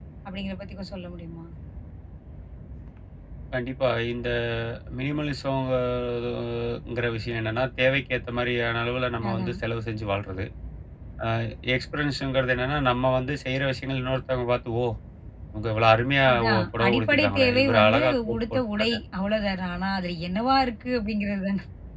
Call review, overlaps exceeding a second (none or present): present